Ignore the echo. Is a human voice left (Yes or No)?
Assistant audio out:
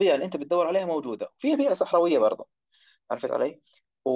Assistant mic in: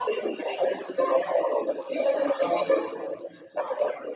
No